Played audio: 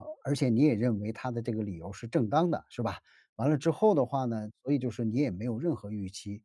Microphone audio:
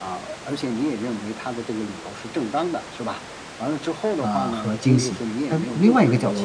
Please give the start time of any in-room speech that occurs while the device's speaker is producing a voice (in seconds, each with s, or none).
4.2 s